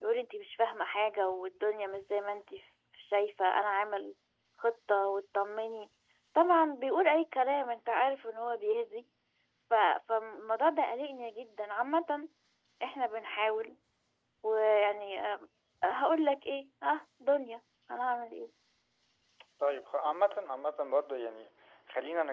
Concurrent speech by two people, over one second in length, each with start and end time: none

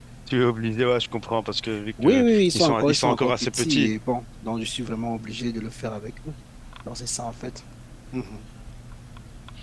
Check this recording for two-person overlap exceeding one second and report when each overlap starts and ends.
2.0-3.9

